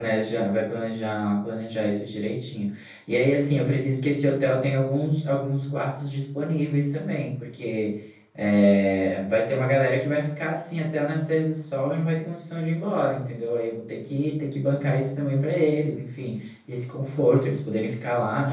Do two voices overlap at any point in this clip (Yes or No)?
No